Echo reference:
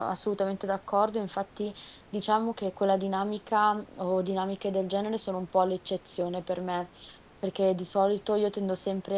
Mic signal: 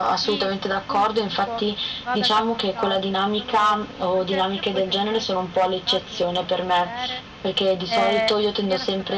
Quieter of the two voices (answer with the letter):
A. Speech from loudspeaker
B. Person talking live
B